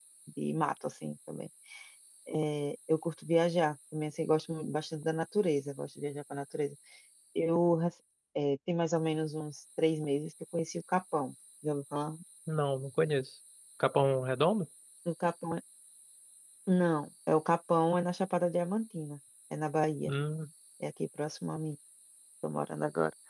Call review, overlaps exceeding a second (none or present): none